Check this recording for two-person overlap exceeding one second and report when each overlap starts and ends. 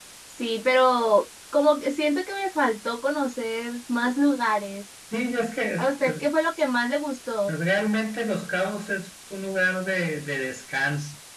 none

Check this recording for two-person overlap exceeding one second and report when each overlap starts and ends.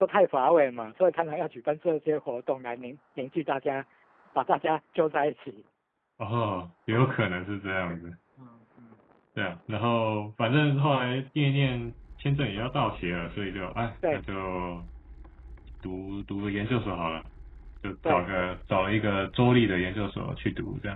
none

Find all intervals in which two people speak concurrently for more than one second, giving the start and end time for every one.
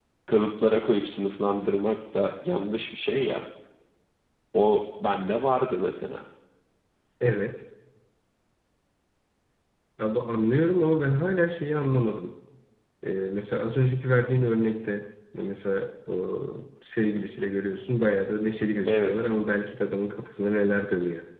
none

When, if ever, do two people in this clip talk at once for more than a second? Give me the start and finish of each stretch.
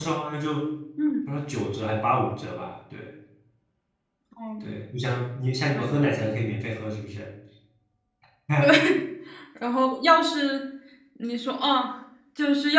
none

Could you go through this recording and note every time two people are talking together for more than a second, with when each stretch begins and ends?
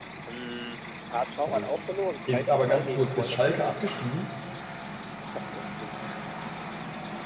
2.3-3.6

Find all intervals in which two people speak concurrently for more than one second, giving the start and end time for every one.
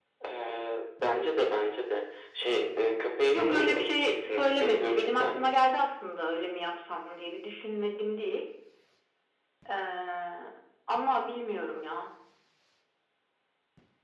3.3-5.5

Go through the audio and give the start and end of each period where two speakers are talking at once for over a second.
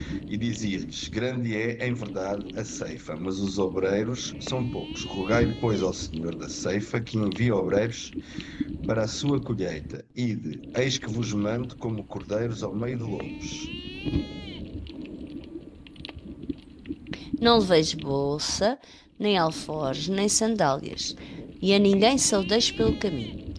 none

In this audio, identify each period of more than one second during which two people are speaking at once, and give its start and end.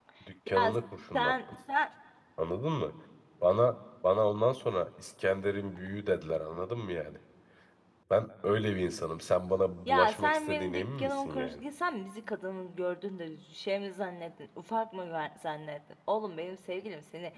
9.9-11.6

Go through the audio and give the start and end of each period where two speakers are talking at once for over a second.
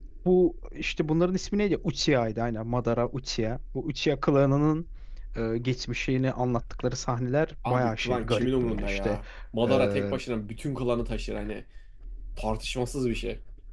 7.7-9.2

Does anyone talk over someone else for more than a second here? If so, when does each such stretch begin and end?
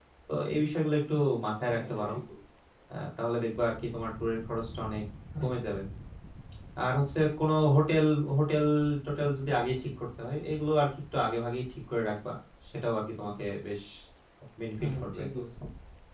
none

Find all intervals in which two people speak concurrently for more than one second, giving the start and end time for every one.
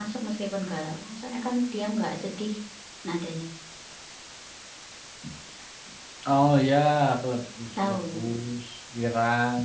none

